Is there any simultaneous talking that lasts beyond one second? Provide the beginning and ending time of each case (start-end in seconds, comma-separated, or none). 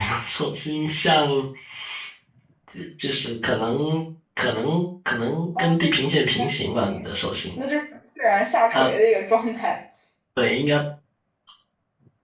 5.6-7.1